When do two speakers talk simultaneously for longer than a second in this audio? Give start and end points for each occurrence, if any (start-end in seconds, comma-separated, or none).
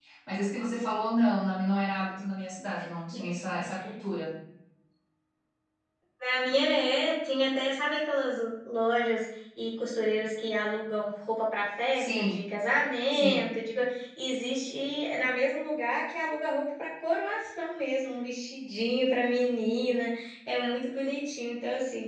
none